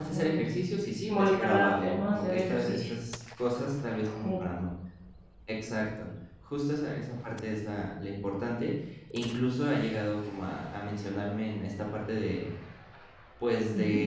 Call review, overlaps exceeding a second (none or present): present